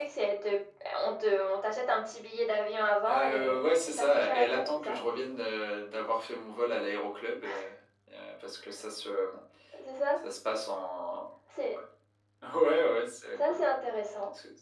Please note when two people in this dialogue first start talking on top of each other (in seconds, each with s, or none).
3.1 s